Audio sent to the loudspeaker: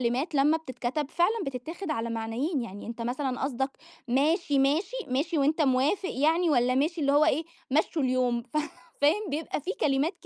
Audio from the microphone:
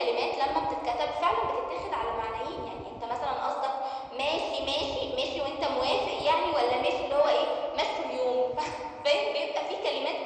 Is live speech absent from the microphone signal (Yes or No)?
Yes